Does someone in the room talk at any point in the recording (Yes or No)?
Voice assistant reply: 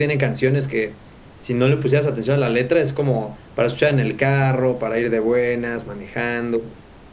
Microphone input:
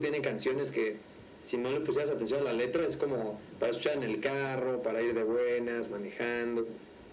No